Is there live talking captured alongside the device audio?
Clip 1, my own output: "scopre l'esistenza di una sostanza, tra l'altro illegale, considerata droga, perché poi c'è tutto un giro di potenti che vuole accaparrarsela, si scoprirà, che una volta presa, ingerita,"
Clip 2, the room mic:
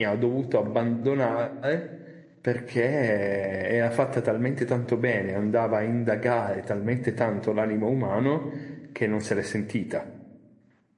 Yes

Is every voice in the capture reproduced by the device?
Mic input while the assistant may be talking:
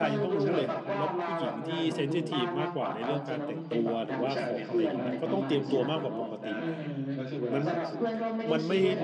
No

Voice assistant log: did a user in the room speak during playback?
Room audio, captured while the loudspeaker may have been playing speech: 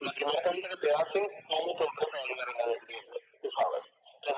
No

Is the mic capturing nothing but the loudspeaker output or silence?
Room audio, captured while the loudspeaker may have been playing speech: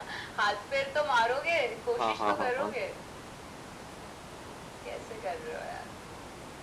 No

